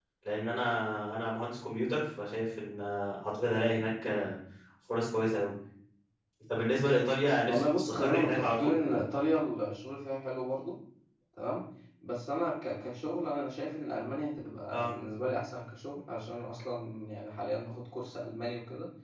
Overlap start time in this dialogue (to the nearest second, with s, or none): 7 s